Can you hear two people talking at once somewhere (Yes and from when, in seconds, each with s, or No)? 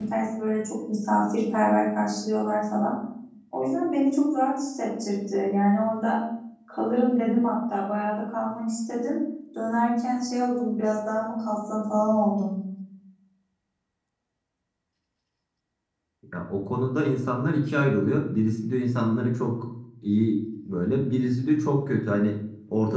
No